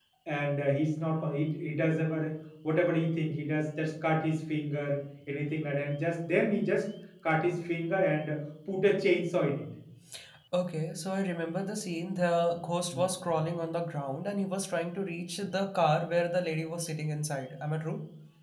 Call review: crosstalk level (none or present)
none